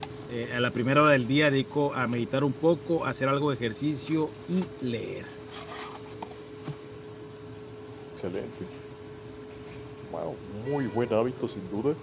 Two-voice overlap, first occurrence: none

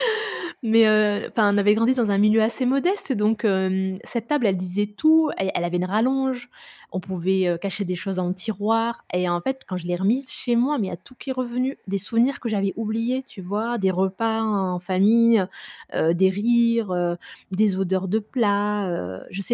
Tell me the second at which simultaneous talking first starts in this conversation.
none

